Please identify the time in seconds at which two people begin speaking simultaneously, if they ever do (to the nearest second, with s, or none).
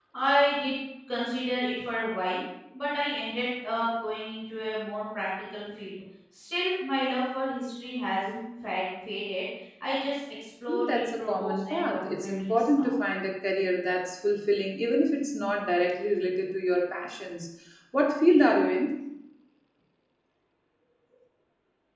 11 s